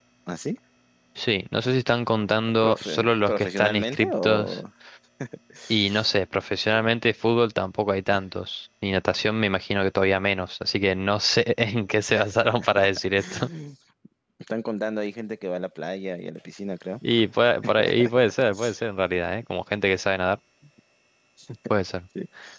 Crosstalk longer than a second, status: present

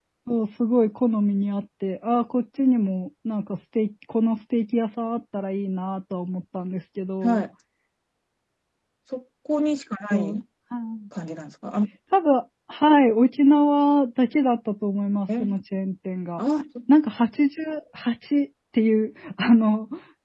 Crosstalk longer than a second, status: none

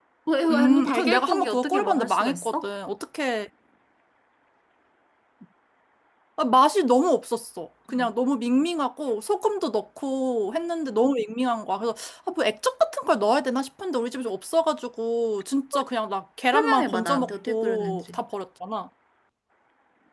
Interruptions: present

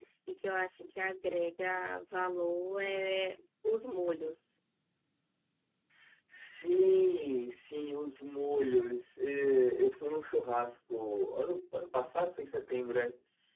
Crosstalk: none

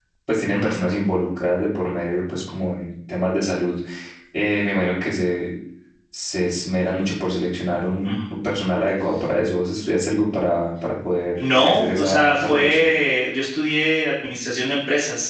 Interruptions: present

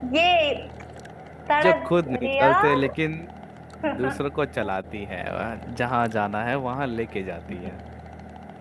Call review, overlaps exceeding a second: present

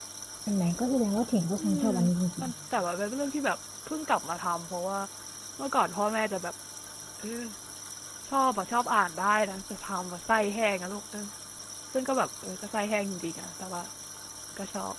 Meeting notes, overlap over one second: none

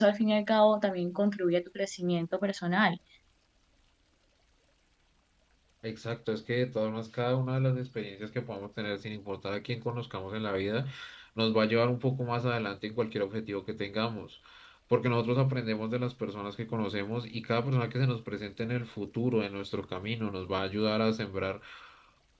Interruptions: none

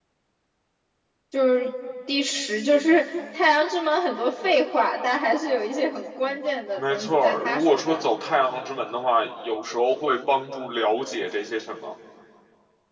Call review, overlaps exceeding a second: present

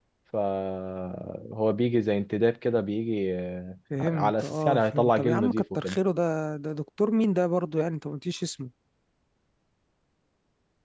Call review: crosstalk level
present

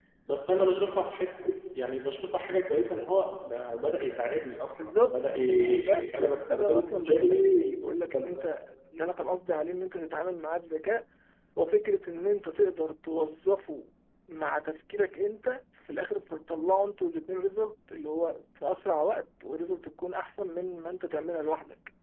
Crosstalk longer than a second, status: present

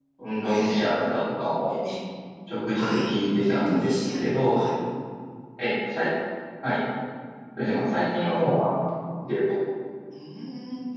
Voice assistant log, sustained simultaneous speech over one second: present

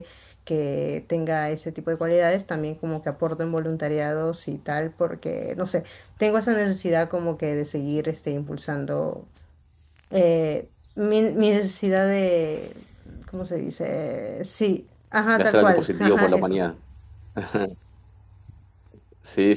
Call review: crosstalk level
present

